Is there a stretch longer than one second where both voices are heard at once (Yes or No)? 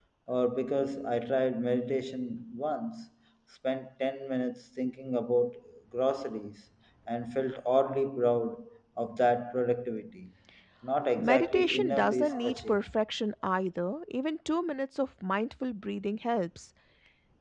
Yes